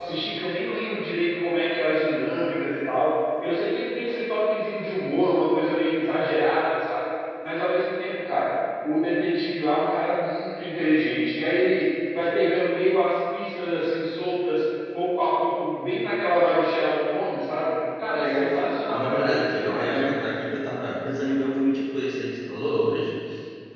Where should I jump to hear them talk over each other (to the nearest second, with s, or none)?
18 s